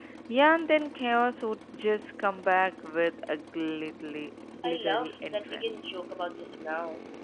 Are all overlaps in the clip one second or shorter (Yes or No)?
No